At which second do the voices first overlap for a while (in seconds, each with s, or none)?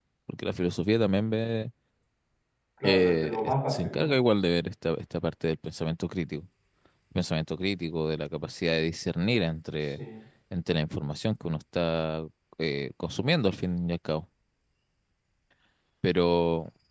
2.8 s